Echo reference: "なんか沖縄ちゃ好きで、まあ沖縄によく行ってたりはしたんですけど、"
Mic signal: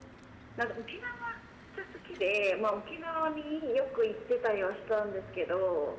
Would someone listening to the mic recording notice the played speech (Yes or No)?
Yes